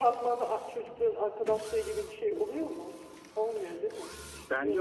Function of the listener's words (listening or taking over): taking over